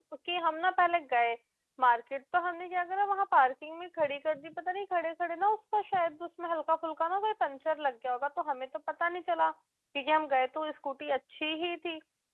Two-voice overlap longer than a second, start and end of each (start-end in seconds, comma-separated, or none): none